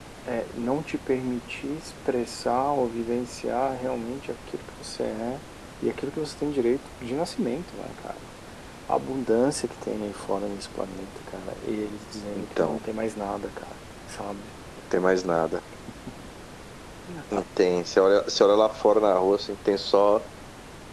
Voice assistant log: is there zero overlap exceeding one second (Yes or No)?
Yes